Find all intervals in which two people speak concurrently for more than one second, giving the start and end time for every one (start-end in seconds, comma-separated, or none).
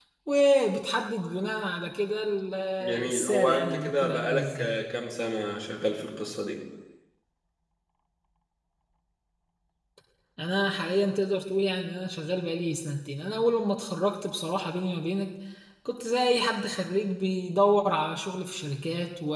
3.0-4.7